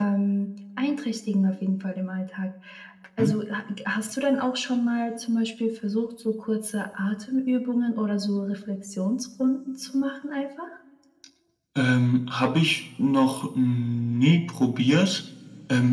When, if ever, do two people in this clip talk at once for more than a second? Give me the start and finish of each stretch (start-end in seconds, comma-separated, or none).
none